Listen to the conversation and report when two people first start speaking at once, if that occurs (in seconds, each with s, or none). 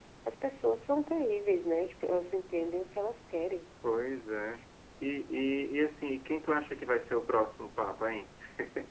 none